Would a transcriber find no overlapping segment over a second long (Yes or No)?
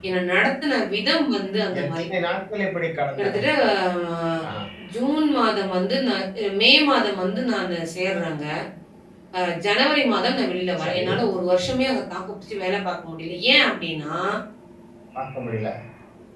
Yes